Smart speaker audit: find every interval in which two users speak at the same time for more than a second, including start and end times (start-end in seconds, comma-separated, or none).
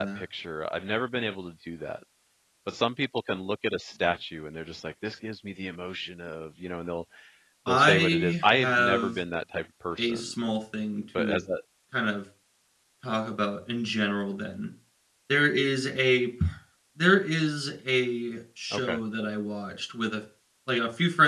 7.7-9.2